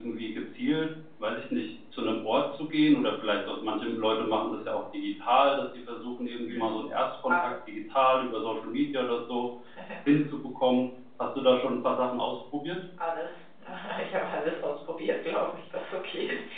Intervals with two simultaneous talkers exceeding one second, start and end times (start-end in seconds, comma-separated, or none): none